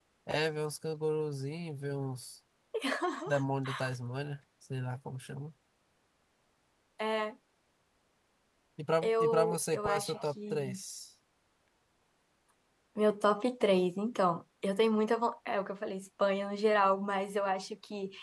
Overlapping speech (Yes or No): Yes